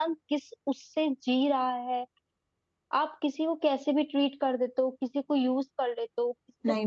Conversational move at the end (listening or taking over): taking over